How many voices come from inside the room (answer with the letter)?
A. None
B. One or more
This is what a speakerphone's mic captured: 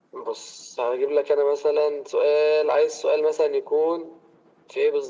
A